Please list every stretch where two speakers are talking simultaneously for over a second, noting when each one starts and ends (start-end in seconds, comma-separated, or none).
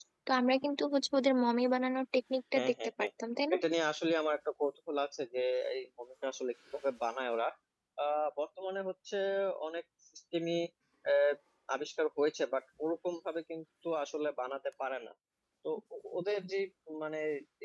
none